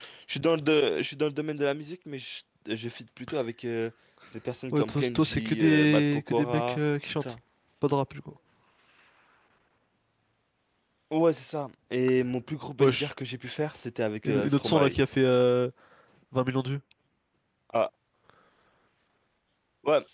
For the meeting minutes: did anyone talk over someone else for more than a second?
Yes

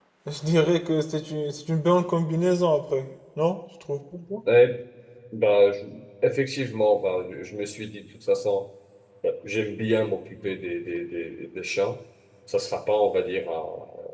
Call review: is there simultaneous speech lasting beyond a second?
No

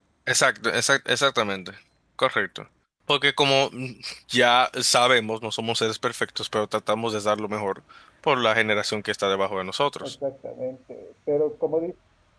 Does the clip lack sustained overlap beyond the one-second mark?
Yes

